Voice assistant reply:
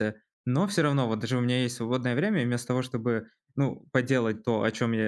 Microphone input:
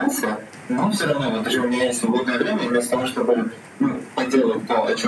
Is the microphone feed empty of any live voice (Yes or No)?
Yes